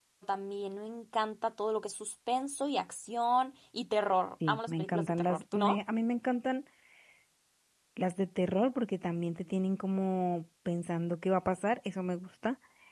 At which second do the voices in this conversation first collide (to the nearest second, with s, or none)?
4 s